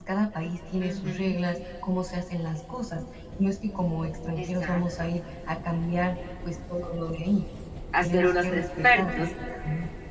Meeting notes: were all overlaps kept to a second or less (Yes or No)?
No